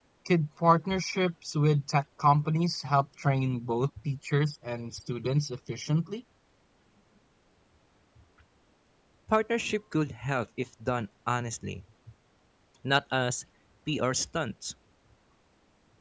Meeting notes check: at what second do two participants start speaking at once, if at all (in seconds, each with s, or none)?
none